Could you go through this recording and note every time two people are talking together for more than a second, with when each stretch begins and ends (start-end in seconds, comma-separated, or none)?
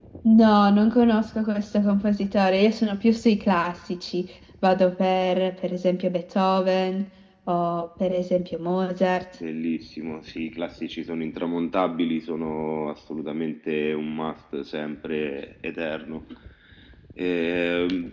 none